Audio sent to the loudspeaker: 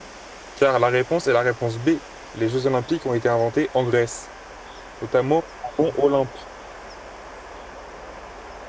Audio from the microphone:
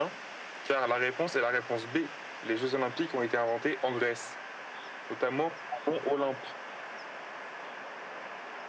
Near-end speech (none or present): none